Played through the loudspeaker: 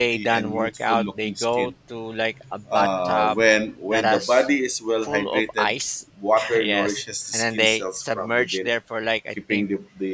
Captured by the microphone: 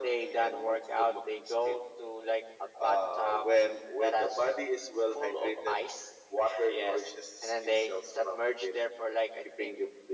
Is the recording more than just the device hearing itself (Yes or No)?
No